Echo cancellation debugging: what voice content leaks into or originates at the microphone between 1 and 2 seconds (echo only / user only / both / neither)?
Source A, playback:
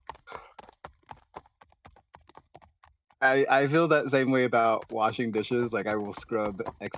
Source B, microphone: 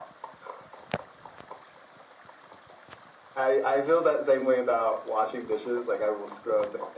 neither